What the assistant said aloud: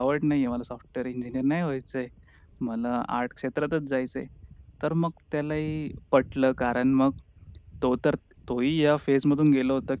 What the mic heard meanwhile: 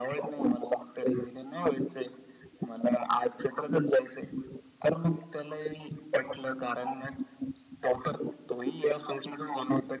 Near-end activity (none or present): none